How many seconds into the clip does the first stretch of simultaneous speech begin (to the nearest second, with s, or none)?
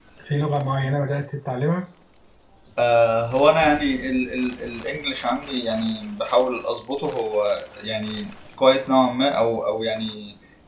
none